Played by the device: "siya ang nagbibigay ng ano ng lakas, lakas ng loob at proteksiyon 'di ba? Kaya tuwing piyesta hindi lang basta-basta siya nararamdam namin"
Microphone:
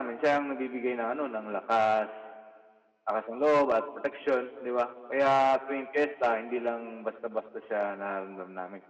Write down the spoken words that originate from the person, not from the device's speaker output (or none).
none